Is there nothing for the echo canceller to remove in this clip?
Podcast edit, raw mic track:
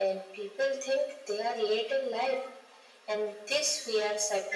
No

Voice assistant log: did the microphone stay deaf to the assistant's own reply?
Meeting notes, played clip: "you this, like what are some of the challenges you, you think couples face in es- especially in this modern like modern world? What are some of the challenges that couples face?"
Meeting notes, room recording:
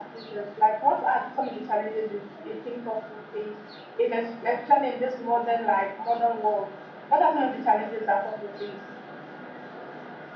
No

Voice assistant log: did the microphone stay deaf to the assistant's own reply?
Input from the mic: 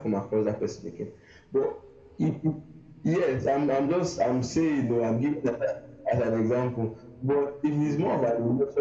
No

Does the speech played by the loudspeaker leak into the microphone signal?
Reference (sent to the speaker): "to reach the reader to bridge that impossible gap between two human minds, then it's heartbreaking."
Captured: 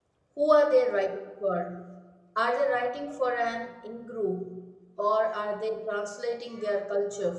No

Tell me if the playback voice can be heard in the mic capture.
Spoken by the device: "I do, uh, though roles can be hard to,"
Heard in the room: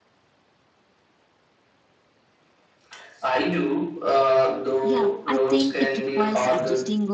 Yes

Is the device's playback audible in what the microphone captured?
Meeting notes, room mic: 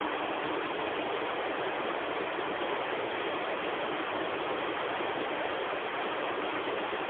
No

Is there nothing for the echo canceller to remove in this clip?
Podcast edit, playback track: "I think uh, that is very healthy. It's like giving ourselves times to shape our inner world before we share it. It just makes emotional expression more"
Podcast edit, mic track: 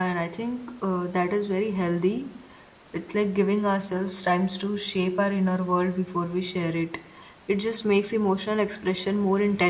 No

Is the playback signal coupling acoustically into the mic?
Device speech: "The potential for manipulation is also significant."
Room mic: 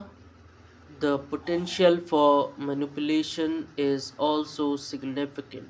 Yes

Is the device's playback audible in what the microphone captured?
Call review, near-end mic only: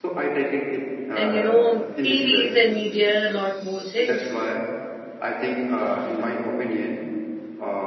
Yes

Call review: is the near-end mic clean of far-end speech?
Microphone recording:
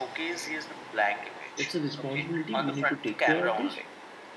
No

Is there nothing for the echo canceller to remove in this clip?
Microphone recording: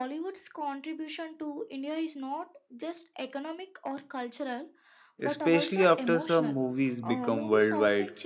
No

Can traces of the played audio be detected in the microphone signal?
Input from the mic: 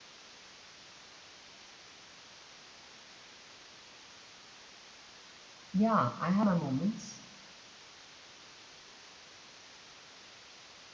No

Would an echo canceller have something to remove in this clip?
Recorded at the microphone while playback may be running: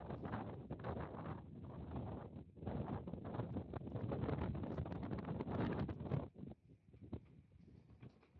No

